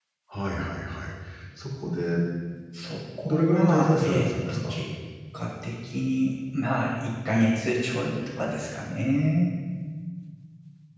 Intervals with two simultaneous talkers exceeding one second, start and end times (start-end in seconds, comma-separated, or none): 3.2-4.7